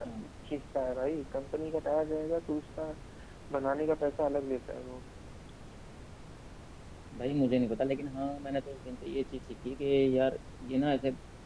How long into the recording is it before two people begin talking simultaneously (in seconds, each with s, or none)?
none